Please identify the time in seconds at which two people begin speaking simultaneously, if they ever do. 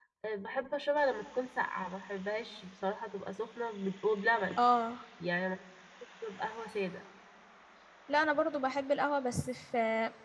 none

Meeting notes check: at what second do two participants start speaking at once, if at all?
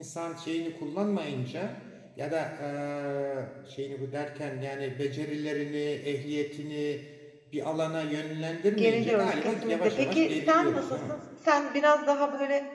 8.8 s

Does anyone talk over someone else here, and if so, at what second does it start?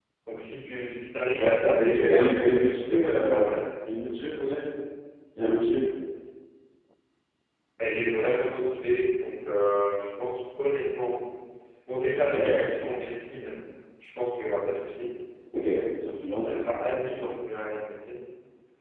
1.4 s

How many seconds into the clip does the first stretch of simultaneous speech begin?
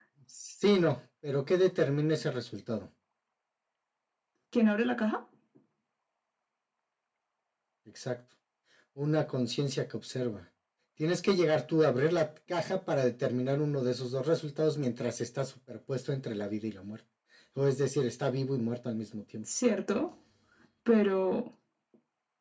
none

